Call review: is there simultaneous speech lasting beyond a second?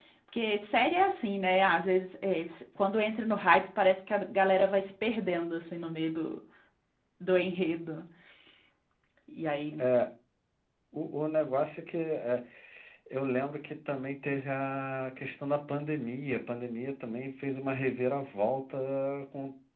No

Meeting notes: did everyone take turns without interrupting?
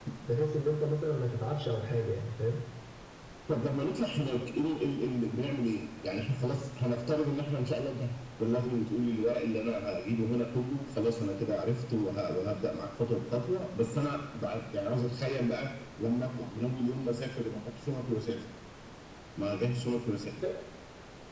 Yes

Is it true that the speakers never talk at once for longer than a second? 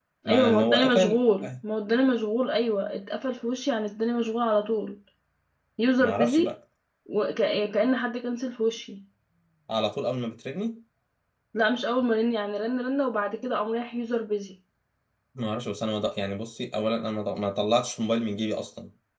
No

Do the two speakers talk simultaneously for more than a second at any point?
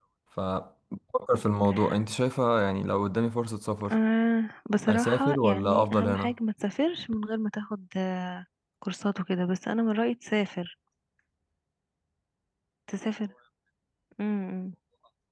Yes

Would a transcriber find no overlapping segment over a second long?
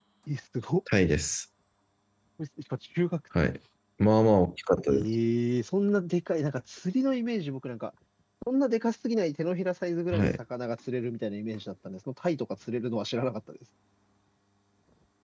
Yes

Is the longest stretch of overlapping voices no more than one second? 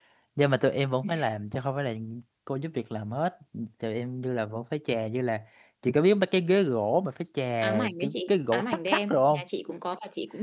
No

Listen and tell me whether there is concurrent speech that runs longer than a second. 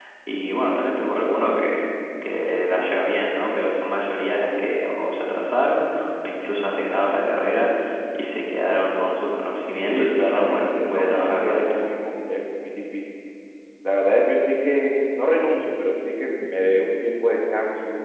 Yes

